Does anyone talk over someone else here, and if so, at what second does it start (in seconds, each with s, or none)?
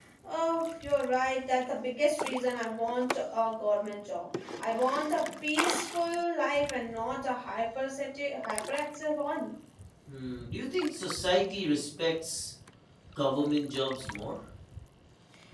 none